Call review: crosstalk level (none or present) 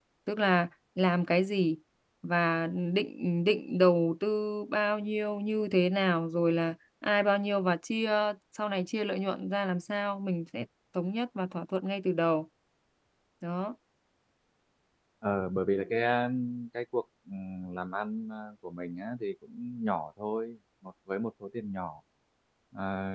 none